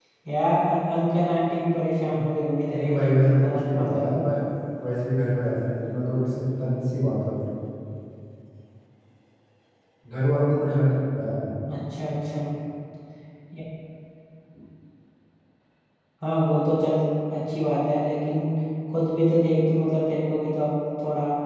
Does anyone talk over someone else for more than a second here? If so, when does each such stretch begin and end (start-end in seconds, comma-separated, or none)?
2.7-4.0